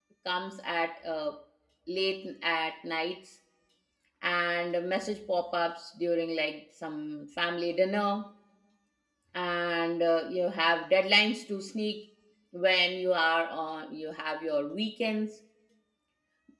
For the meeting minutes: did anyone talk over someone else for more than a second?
No

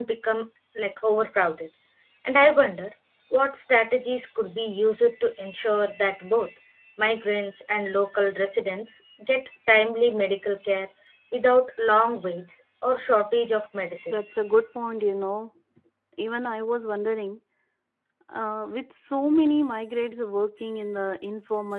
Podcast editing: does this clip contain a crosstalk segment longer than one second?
No

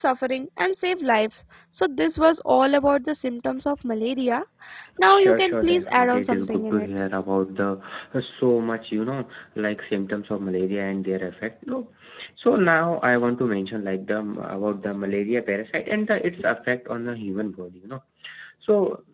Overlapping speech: Yes, from 5.1 s

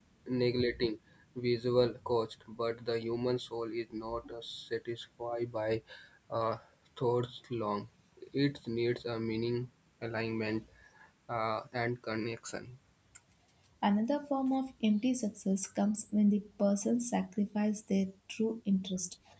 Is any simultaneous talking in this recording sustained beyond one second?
No

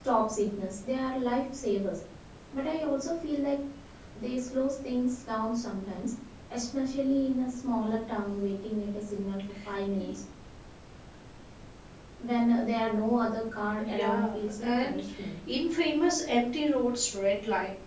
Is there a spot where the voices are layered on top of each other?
Yes, from 13.8 s

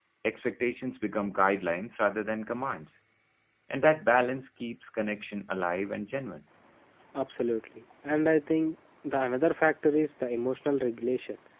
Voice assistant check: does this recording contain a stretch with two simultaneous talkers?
No

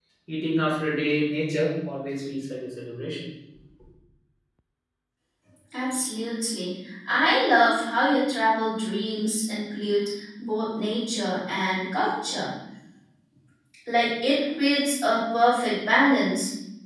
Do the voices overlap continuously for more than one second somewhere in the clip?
No

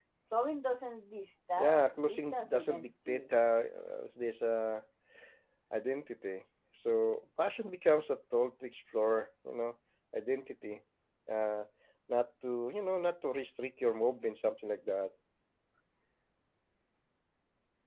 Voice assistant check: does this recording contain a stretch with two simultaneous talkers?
Yes, from 1.6 s

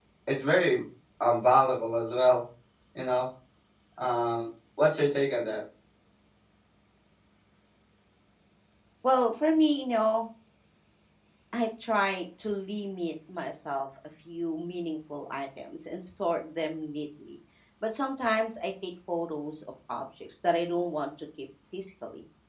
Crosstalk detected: No

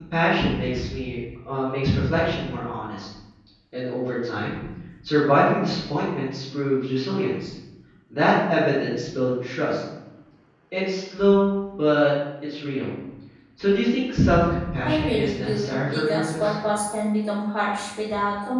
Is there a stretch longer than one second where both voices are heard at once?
Yes, from 14.8 s

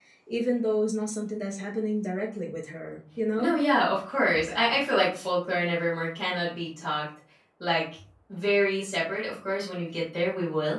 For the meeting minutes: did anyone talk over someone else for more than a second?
No

